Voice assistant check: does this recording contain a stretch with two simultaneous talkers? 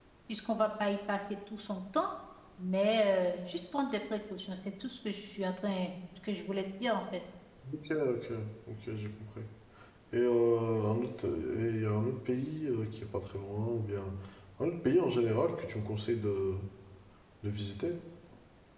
No

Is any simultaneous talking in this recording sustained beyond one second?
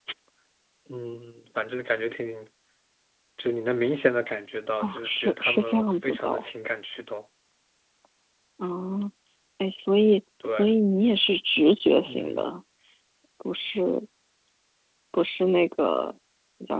Yes, from 4.8 s

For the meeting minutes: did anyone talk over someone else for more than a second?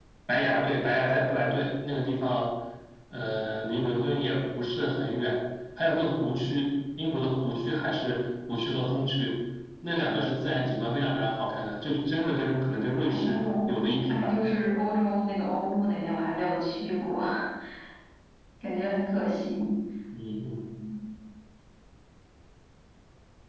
No

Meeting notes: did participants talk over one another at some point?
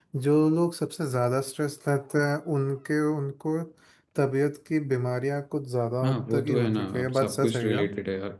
Yes, from 6.0 s

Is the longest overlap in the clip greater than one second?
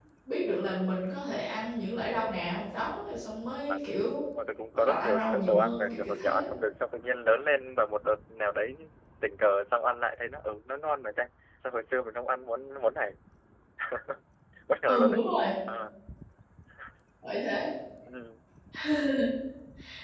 Yes, from 4.8 s

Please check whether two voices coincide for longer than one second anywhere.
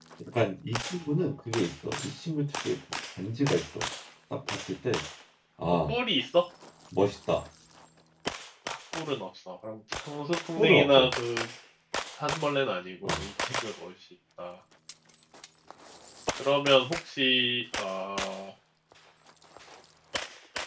No

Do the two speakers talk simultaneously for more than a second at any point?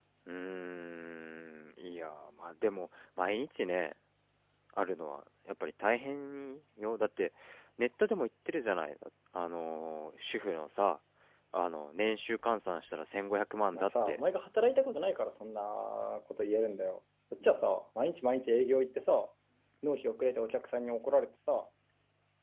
No

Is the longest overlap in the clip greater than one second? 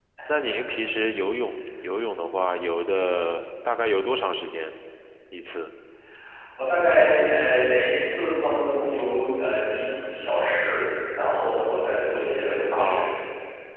No

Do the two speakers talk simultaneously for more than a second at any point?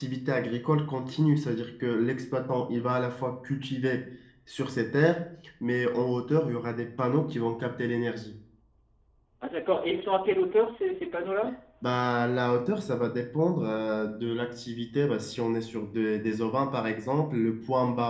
No

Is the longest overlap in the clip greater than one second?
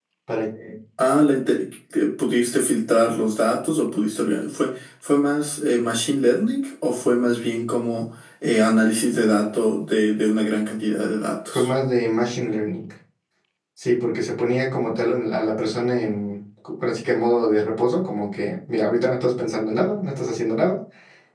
No

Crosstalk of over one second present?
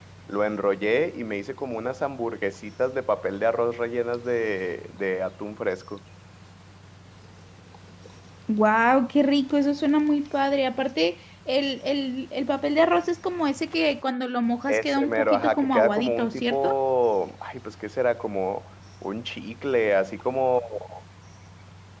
Yes, from 14.7 s

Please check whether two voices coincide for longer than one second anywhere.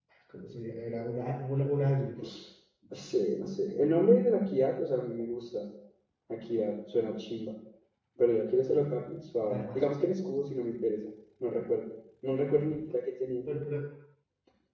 No

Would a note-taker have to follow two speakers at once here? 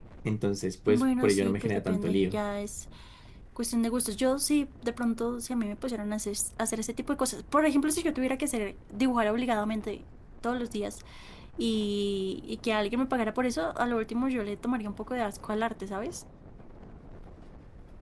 Yes, from 0.9 s

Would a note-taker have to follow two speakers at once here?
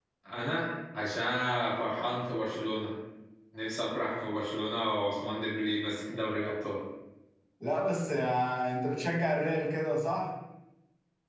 No

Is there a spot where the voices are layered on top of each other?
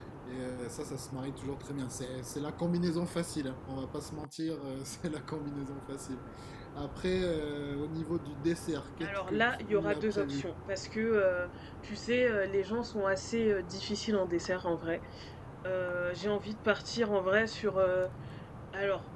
Yes, from 9.0 s

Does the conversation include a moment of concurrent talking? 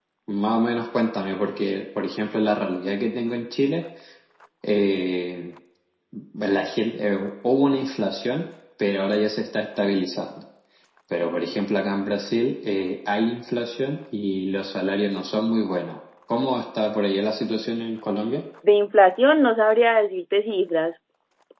No

